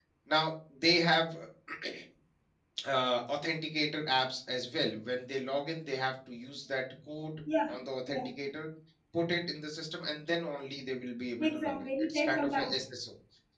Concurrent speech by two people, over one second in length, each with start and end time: 11.4-12.7

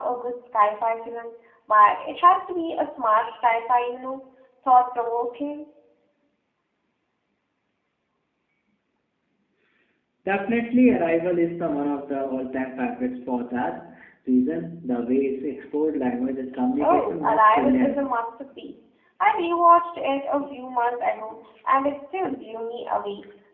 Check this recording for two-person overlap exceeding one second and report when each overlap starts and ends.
16.8-18.1

